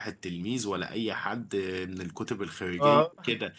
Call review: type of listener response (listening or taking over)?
listening